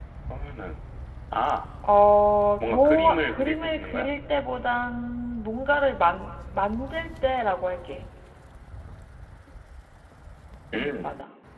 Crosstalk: present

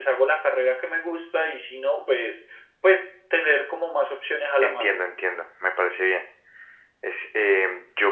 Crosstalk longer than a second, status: none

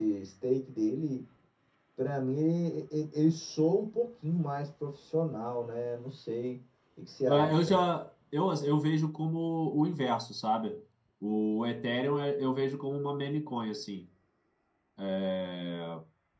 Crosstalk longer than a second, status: none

